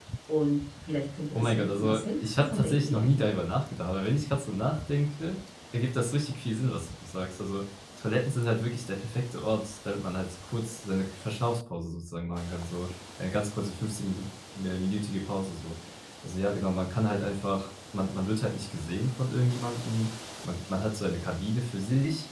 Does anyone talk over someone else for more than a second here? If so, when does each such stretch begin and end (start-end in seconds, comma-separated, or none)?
1.3-3.4